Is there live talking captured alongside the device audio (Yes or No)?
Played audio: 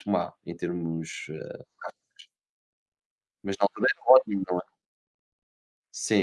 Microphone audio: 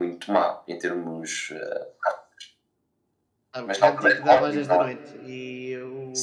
Yes